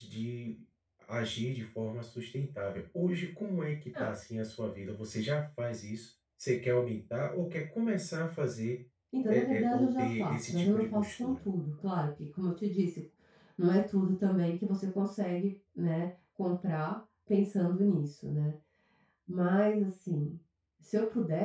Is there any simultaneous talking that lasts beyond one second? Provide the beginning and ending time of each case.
9.3-11.4

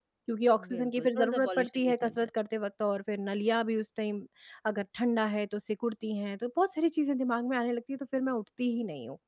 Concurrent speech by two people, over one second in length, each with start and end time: 0.7-2.3

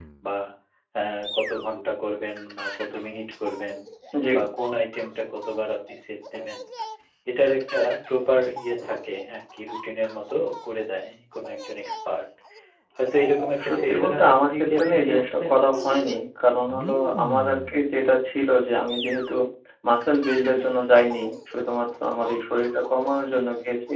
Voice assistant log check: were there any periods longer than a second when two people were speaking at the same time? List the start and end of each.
13.7-15.5

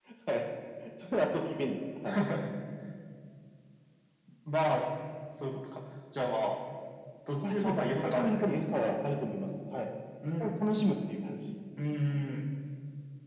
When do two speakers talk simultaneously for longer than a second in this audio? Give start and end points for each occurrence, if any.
7.4-8.9

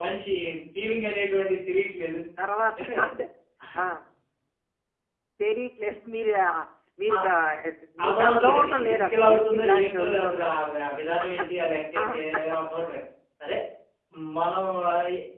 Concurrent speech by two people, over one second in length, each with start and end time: 8.0-10.5

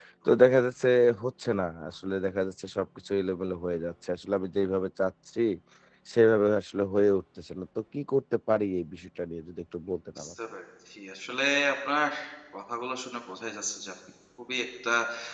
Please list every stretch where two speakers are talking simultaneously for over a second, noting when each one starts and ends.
none

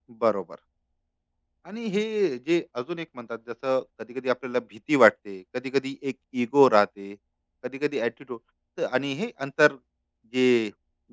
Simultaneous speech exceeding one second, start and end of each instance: none

